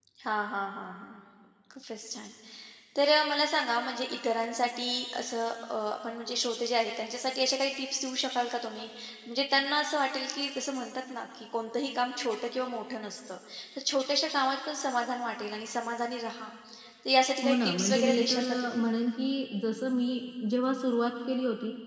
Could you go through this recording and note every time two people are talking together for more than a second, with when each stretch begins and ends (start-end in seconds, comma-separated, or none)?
17.4-18.8